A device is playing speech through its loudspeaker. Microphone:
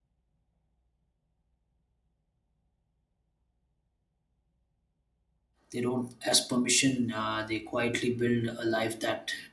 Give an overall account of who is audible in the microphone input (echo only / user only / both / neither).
user only